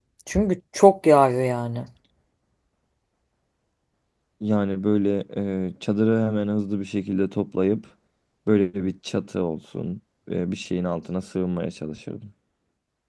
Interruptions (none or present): none